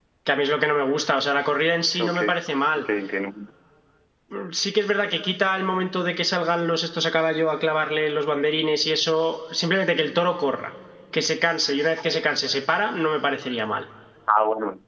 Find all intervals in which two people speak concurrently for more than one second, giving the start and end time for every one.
none

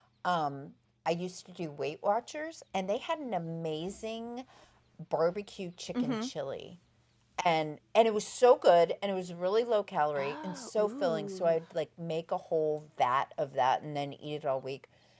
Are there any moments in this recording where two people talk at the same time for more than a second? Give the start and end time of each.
10.2-11.6

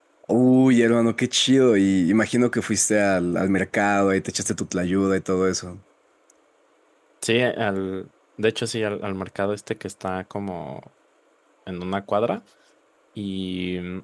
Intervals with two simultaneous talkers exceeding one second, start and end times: none

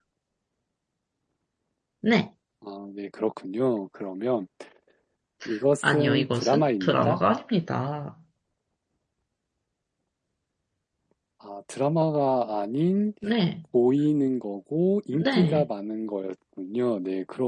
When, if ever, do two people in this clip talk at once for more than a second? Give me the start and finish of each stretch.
5.8-7.2

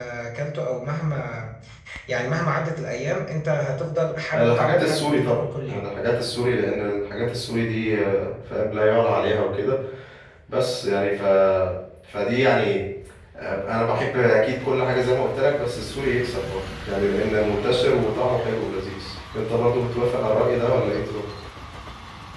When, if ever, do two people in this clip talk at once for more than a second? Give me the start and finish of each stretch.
4.3-5.9

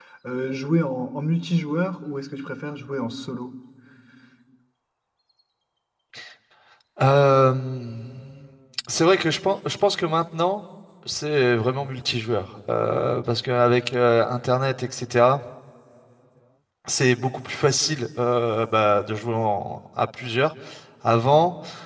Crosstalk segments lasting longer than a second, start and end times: none

